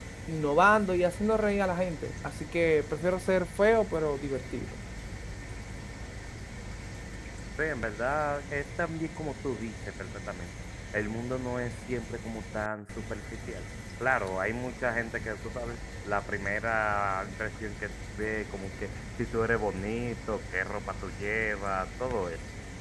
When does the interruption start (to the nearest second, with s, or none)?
none